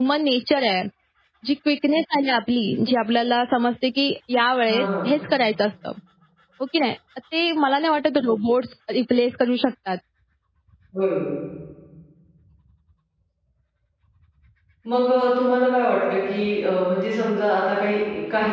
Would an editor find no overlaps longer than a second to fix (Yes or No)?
Yes